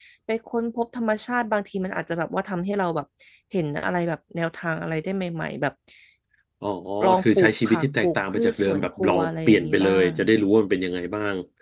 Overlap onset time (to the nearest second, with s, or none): 7 s